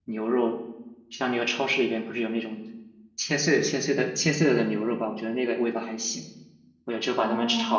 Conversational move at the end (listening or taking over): listening